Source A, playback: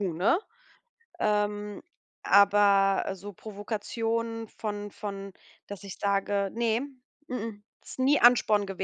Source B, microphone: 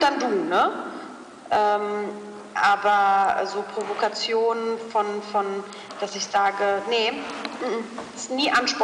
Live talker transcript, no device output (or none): none